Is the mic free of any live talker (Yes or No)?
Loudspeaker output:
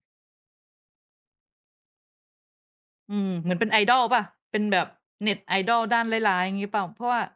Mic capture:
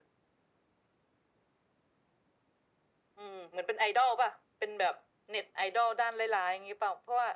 Yes